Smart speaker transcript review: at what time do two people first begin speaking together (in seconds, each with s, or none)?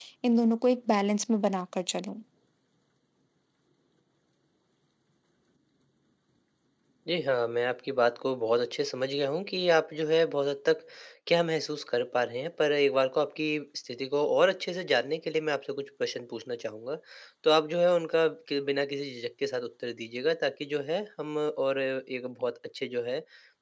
none